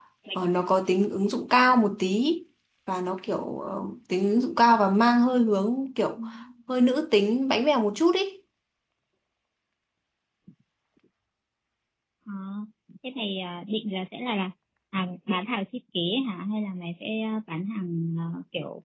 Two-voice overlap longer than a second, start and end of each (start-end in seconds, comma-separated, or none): none